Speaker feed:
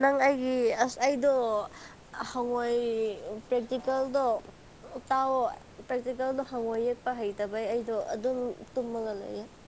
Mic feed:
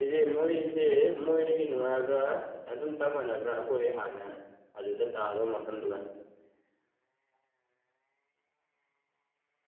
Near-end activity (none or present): present